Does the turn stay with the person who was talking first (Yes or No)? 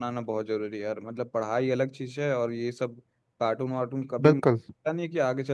Yes